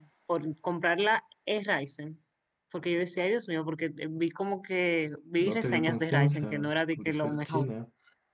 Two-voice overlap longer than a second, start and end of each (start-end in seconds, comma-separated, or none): 5.4-7.7